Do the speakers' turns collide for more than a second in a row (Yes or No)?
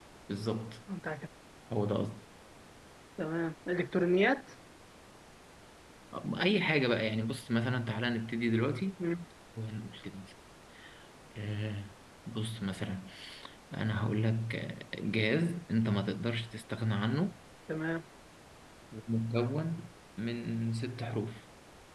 No